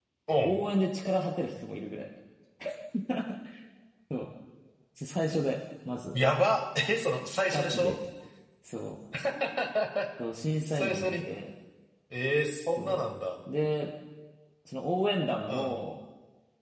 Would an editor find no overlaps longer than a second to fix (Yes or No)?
Yes